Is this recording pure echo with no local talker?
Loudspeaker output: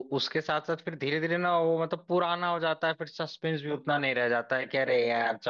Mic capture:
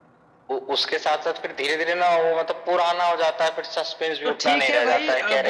No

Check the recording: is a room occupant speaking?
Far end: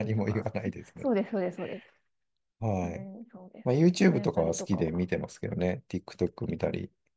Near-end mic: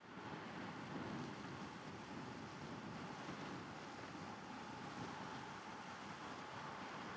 No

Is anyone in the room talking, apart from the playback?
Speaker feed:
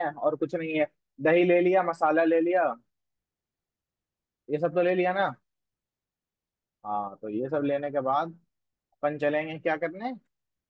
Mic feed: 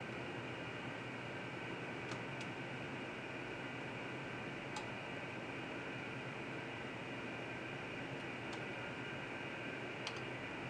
No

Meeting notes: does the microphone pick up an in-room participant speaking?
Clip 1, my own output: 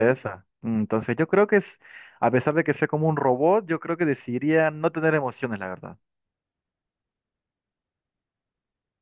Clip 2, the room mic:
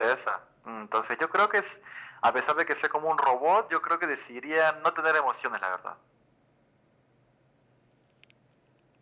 No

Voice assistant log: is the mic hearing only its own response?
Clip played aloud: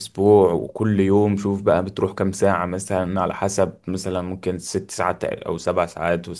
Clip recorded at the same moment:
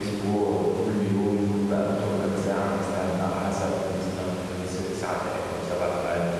Yes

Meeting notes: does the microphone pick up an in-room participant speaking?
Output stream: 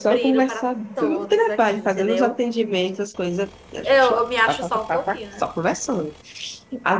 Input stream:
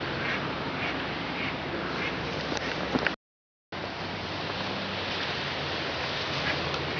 No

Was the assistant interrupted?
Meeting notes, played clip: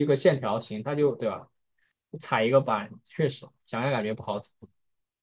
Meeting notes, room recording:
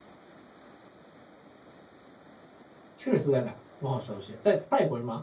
Yes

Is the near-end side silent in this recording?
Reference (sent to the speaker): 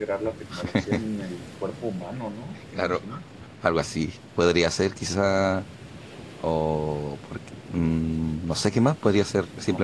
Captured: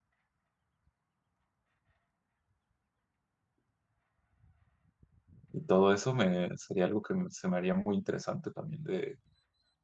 No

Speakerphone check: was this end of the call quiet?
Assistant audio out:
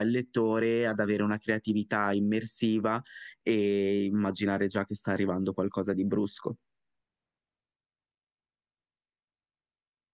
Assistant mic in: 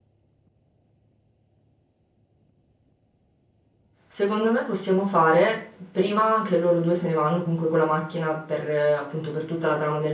No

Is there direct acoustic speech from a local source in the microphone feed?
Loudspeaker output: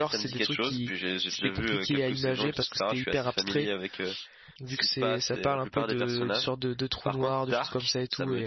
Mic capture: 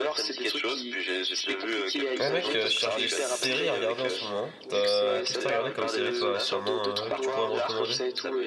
Yes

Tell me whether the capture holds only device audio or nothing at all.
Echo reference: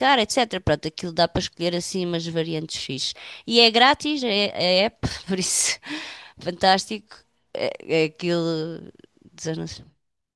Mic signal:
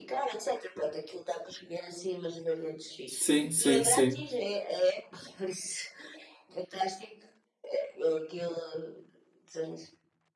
No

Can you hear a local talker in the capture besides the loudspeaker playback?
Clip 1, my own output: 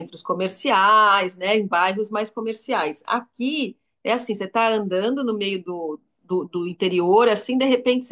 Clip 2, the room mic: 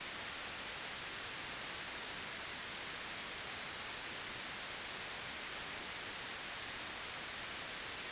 No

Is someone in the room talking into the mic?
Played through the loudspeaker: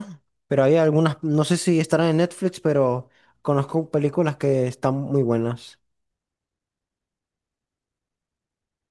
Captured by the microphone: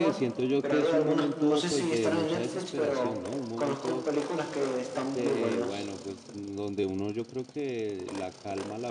Yes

